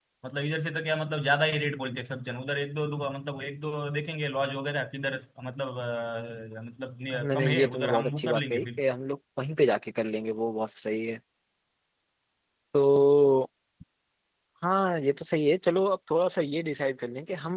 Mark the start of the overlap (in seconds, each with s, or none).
7.1 s